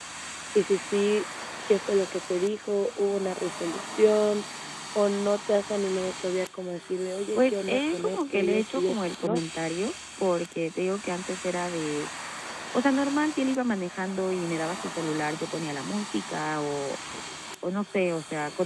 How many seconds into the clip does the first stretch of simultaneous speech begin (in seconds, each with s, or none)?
7.3 s